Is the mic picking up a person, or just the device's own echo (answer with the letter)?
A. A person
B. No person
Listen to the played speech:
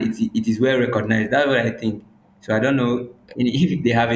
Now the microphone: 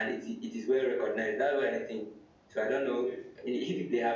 A